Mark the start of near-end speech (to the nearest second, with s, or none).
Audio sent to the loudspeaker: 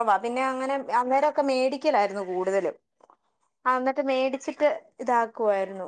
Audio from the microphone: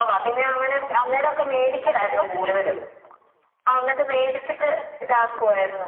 2 s